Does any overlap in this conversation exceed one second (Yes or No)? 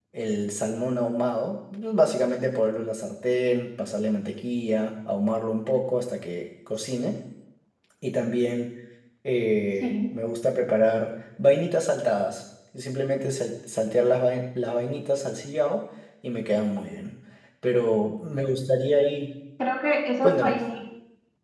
No